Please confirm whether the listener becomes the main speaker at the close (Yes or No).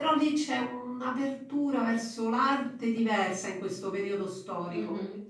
Yes